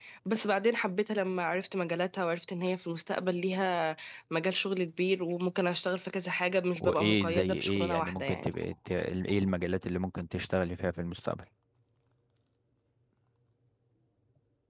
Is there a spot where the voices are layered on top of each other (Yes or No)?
Yes